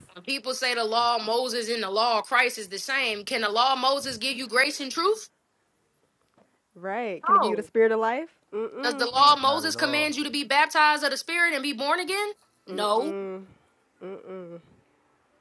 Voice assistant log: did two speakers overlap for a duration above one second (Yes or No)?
Yes